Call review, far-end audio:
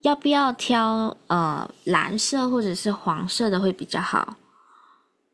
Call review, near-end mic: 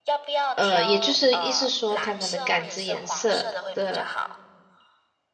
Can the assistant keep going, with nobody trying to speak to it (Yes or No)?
No